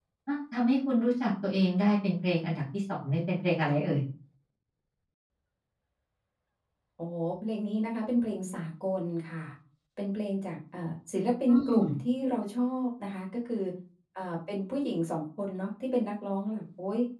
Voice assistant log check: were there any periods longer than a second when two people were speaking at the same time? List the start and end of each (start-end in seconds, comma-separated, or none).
none